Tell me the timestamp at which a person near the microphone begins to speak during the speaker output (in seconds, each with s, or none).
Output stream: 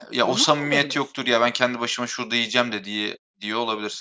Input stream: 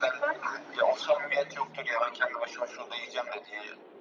none